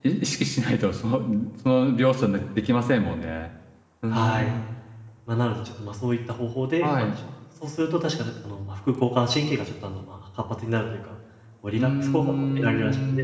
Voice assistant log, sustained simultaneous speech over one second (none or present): present